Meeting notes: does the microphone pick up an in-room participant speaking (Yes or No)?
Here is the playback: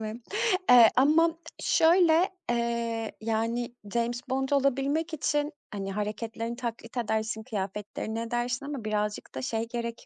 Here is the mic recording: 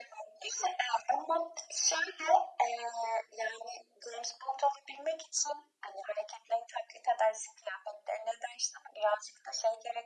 No